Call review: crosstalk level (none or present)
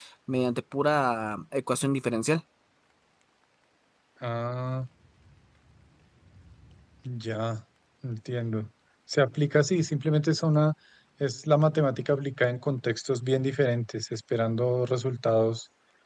none